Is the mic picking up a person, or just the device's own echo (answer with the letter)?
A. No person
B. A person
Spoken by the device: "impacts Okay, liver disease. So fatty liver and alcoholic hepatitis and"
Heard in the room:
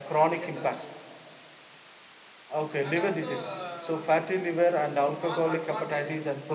B